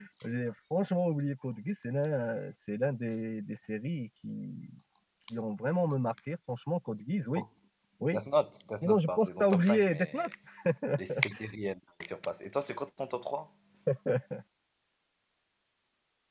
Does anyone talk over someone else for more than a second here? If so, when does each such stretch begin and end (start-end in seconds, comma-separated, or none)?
8.8-10.2